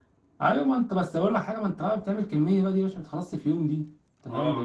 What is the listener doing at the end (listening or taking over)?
taking over